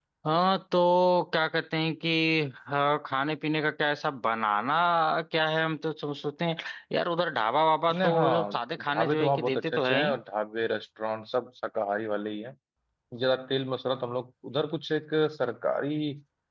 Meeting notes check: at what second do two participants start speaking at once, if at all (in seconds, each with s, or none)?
7.9 s